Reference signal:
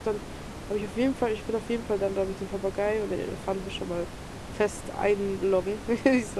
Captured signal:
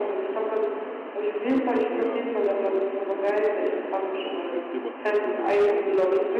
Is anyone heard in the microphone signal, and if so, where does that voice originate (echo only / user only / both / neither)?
both